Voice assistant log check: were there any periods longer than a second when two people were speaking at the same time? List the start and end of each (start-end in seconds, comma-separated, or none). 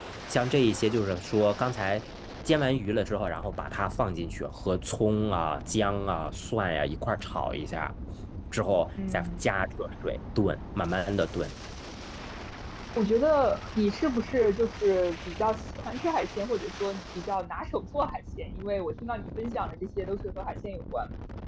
none